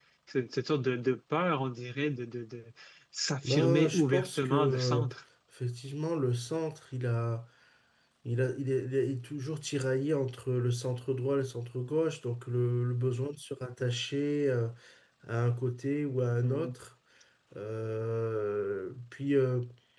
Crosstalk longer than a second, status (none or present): present